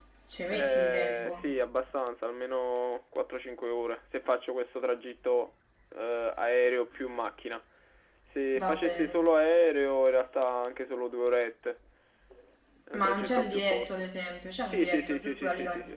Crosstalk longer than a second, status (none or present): present